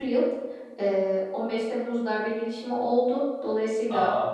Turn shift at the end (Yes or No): No